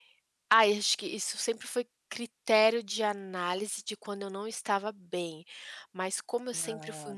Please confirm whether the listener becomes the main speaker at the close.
No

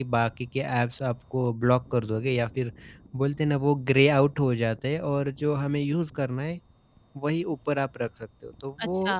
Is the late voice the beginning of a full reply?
Yes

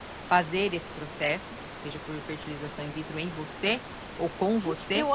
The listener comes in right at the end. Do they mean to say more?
Yes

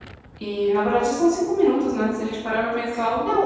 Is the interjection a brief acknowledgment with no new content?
No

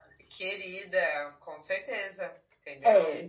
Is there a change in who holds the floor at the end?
Yes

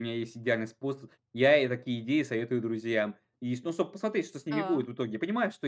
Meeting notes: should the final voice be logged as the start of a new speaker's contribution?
No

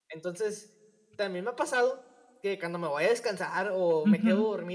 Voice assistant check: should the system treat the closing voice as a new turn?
No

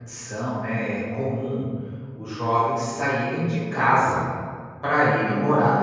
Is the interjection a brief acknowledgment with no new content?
No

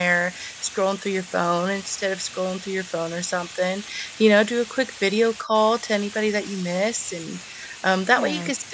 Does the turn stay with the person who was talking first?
Yes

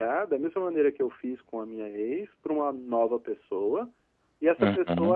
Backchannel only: Yes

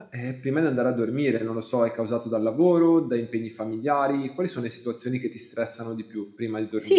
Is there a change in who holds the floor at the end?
Yes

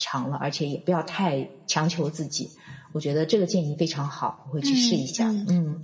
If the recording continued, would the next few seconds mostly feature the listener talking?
Yes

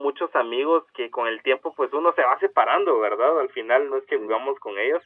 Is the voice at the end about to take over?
No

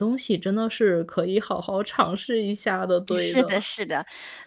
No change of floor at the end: No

